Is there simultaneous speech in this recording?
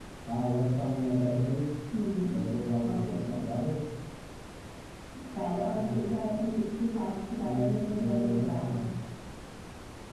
Yes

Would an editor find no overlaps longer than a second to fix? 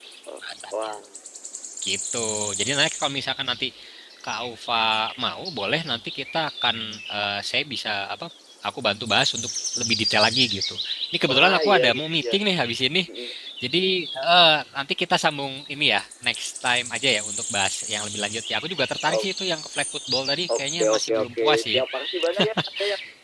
No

